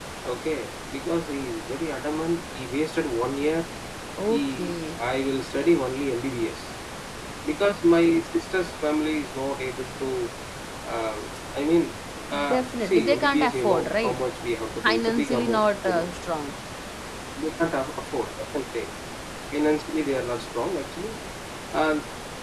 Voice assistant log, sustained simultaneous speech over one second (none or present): present